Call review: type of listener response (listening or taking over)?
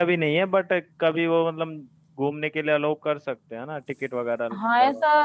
taking over